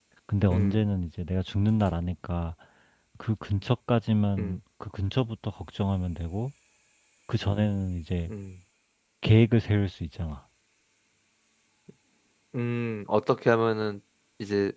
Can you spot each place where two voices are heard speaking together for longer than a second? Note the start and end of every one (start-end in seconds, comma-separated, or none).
none